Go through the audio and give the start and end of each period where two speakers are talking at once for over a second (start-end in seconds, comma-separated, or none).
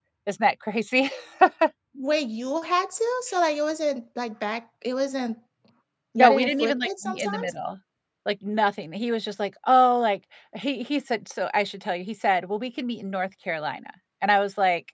6.2-7.5